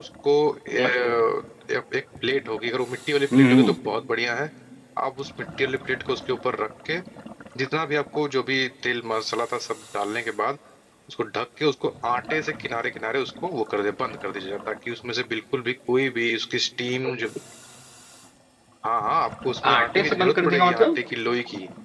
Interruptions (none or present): present